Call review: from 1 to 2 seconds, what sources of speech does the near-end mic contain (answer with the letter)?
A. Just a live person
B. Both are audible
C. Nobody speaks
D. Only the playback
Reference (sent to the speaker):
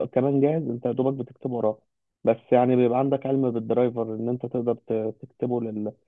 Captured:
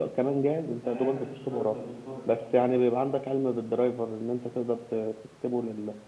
B